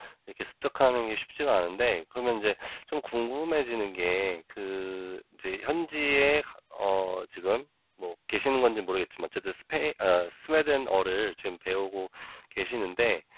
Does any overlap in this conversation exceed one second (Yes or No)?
No